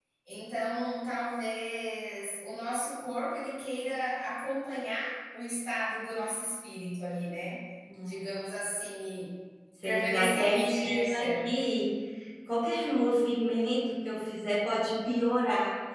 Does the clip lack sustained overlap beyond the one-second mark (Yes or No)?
No